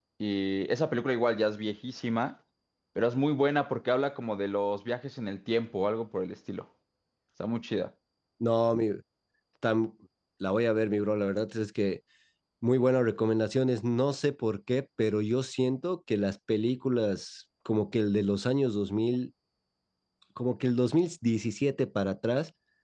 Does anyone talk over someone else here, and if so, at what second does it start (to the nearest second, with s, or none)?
none